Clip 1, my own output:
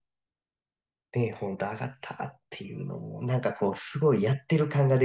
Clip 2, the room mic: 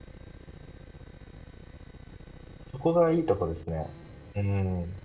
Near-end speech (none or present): present